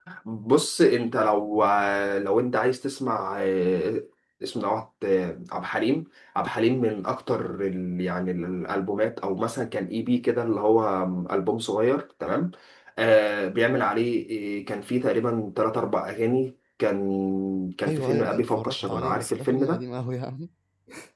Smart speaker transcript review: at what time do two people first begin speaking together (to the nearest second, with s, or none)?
18 s